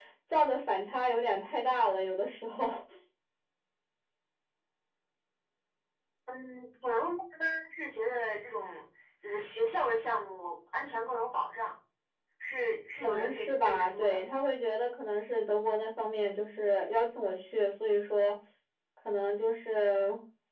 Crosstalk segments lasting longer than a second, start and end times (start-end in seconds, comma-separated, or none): 13.0-14.2